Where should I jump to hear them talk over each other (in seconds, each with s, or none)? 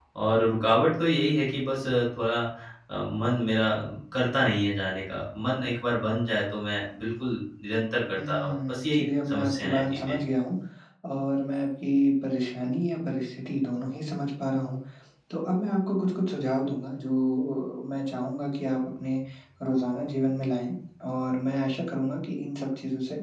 8.2 s